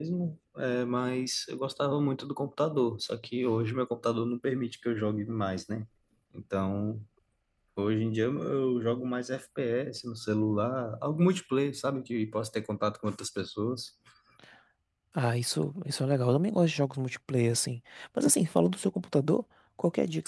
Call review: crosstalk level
none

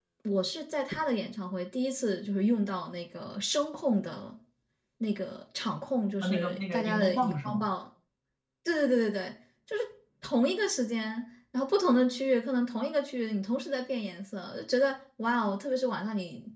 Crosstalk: present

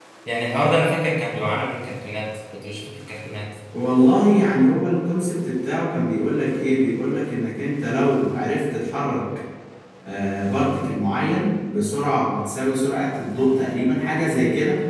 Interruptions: none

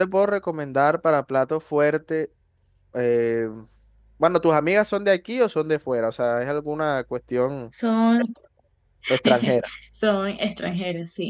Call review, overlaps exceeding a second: none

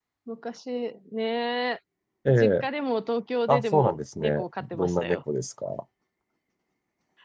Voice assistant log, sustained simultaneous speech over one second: present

